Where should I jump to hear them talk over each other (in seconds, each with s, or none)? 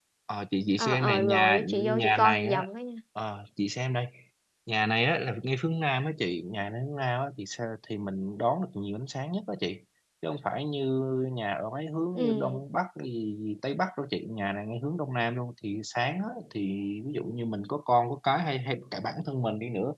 0.8 s